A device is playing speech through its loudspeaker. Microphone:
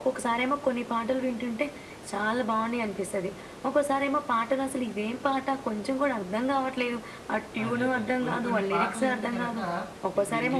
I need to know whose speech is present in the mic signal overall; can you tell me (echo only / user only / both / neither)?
both